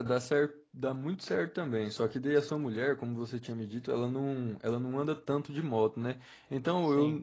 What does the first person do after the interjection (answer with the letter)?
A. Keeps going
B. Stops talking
A